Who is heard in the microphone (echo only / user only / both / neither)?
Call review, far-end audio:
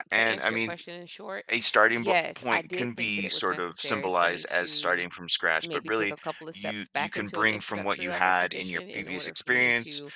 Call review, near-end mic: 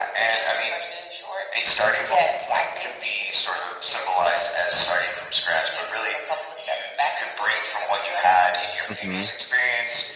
both